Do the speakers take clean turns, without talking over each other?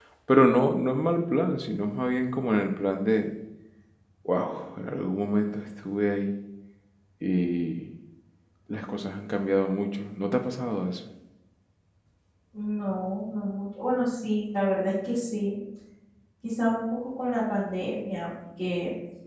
Yes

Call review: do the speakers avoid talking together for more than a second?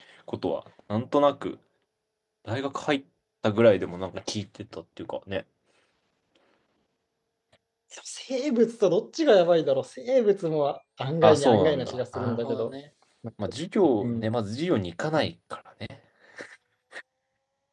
No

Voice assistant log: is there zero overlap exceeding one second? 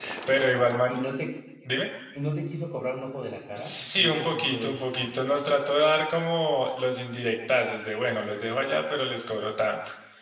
No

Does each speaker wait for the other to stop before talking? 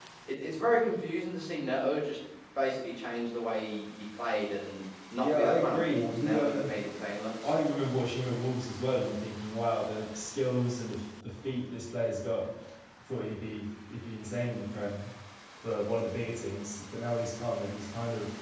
No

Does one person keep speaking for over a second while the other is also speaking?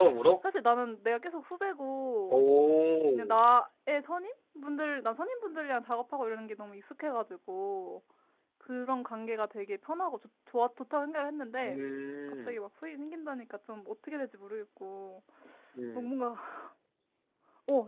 No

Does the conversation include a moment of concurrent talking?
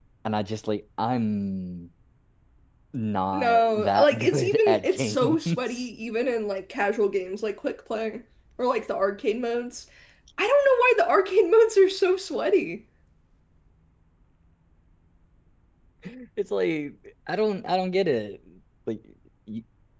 Yes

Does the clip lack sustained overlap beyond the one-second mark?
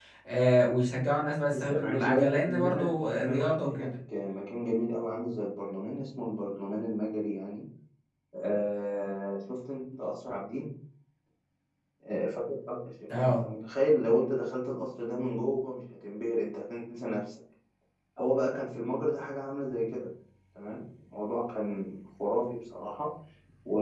No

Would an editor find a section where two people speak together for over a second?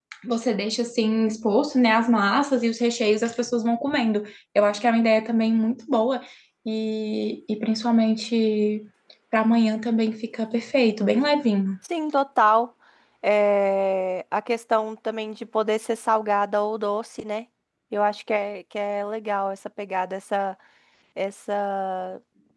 No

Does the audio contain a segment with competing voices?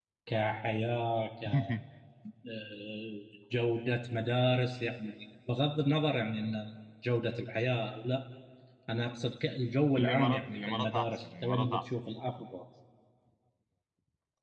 Yes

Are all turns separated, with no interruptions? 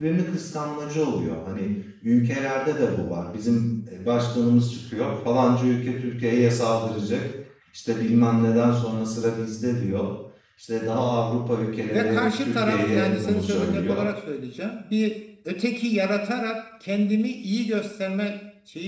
No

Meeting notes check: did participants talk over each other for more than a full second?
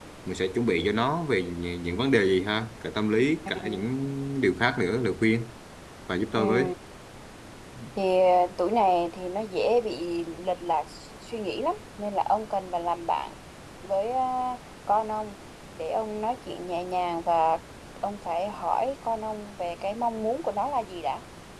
No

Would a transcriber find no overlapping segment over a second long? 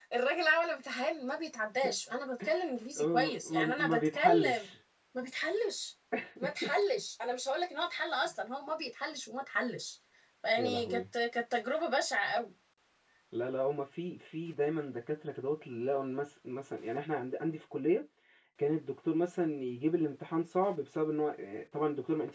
No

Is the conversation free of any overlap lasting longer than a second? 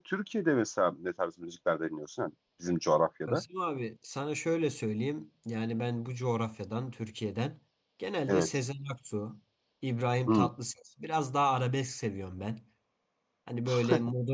Yes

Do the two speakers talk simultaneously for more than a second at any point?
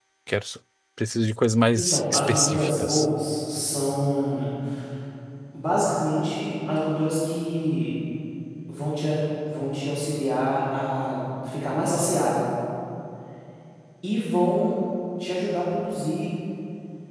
Yes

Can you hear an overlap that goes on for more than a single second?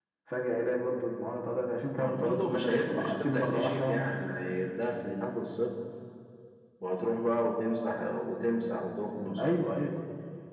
Yes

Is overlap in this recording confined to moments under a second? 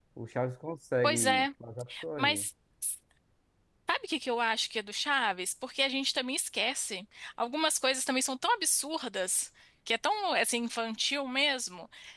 Yes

